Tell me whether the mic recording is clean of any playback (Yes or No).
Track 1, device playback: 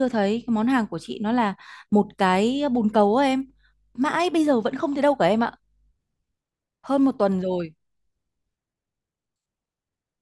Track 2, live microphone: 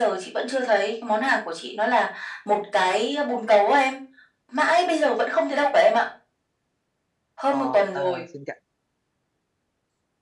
No